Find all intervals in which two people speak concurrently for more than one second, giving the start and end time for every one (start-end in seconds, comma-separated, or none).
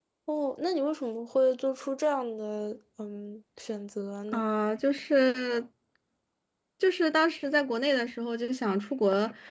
none